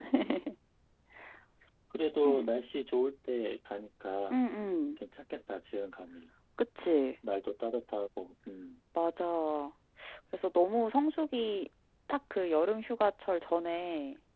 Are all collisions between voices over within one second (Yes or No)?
Yes